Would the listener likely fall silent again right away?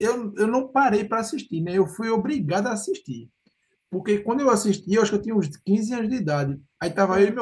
Yes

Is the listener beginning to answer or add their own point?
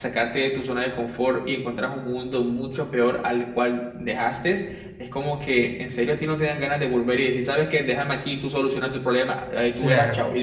Yes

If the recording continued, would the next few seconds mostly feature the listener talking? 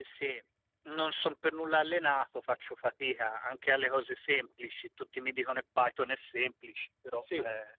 Yes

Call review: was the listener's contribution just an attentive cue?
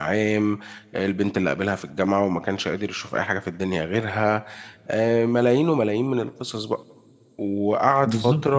No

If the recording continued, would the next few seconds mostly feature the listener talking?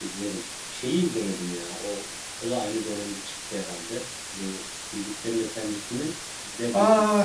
Yes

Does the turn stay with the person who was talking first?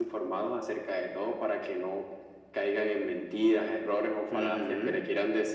Yes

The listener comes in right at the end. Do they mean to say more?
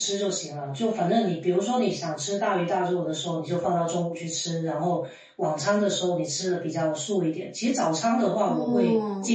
No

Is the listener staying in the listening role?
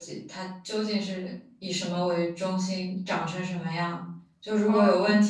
Yes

